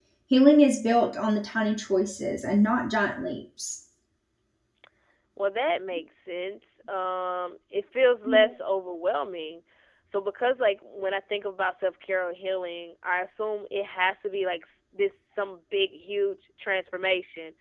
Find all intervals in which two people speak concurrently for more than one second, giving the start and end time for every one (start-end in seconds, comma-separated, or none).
none